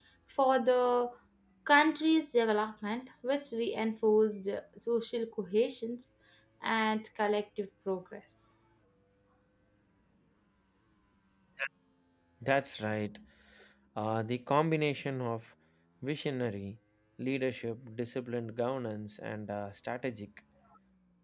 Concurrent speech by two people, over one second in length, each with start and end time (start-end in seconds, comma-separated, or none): none